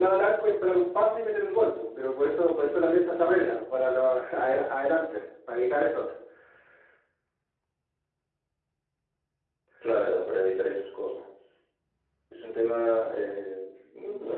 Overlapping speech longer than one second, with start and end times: none

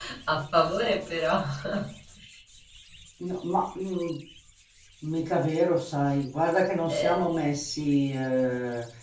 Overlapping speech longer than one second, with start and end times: none

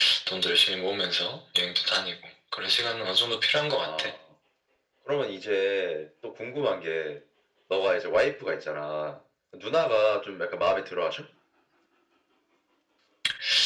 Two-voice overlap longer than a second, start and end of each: none

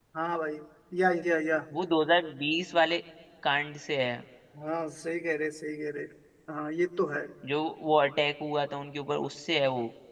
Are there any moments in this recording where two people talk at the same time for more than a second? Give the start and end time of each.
none

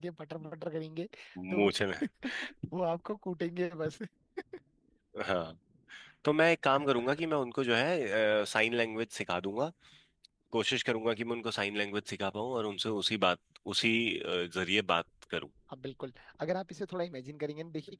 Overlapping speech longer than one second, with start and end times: none

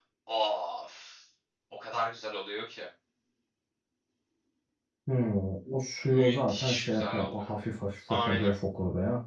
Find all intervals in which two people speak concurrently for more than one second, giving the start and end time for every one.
6.0-7.5

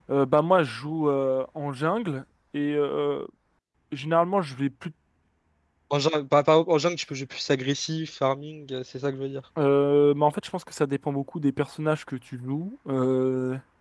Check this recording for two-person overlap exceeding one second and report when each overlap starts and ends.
none

